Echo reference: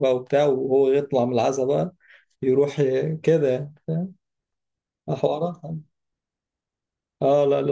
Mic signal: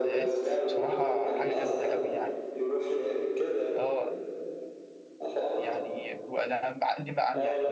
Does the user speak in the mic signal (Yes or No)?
Yes